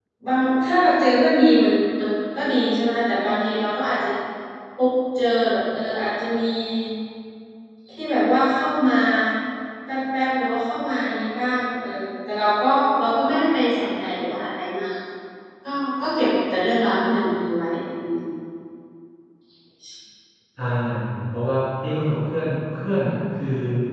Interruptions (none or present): none